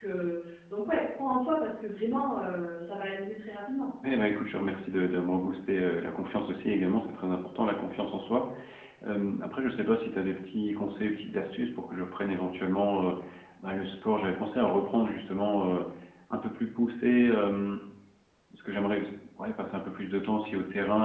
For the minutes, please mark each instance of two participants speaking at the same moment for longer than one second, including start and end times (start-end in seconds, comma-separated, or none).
none